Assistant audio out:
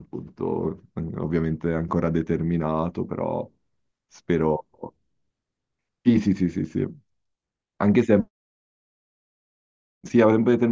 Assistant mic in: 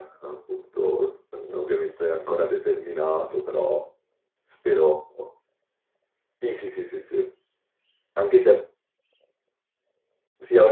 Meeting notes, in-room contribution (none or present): none